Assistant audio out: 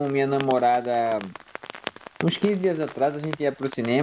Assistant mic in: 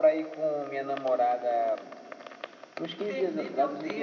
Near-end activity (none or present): present